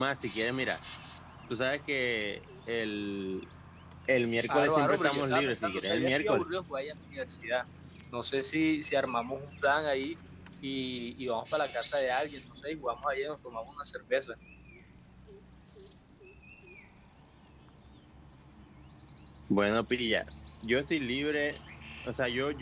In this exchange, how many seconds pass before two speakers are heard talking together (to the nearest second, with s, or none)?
4 s